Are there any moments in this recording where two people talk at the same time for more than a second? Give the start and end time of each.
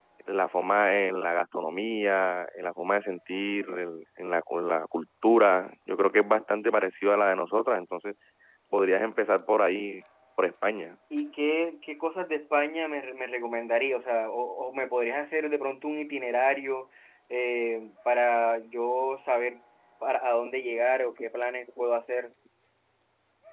none

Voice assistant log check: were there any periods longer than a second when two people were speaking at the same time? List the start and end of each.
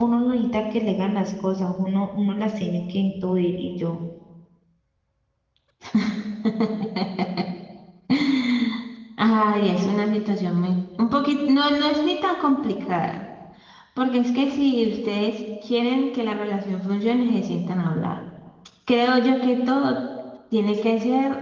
none

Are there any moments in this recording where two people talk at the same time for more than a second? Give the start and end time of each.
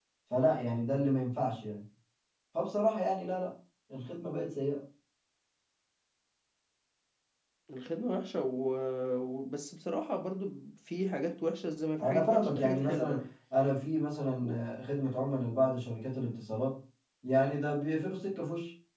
12.0-13.3

